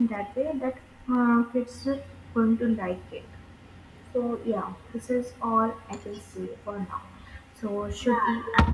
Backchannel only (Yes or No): No